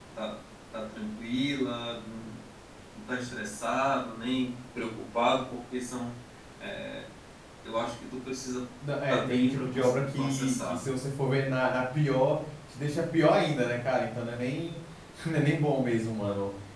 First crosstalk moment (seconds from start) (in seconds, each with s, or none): 9.1 s